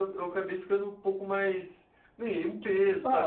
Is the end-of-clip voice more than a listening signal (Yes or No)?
Yes